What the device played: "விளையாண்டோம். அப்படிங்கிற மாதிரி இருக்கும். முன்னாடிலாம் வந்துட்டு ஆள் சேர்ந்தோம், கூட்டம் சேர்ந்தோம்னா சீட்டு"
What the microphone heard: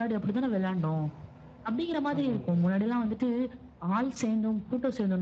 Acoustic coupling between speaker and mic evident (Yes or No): Yes